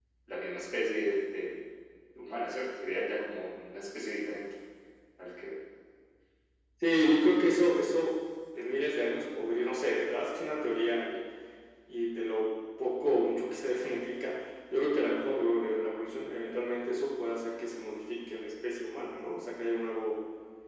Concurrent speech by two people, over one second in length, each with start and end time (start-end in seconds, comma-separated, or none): none